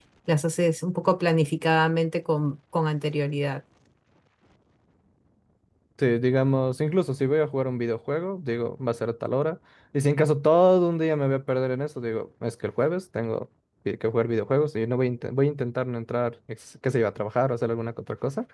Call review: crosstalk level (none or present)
none